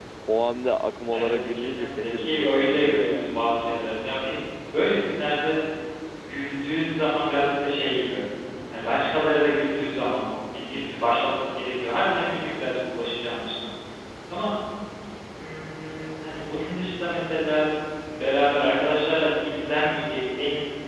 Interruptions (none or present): present